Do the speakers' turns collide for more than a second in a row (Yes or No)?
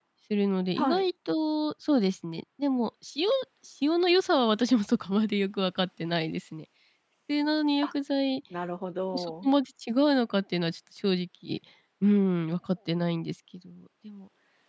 No